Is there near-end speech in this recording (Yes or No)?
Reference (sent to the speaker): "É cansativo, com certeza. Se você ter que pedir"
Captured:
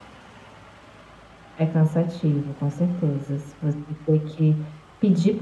No